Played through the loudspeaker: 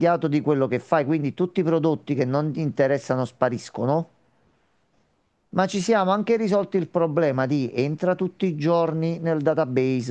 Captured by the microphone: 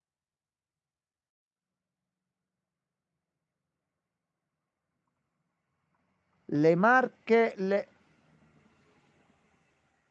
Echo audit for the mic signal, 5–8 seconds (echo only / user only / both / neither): user only